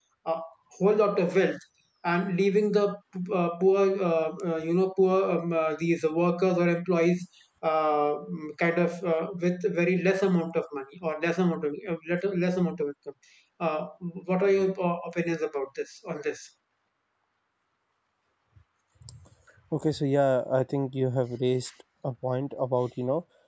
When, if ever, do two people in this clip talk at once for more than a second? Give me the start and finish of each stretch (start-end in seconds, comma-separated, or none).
none